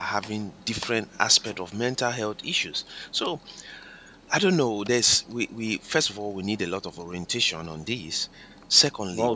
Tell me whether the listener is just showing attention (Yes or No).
Yes